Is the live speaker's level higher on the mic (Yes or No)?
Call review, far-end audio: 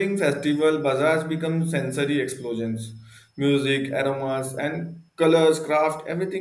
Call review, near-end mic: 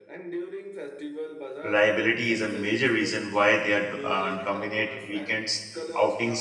Yes